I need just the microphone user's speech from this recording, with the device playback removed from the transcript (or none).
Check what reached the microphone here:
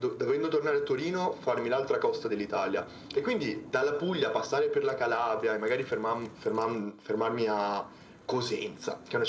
none